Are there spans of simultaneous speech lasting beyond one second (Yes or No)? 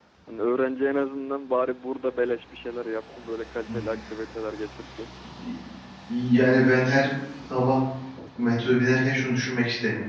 No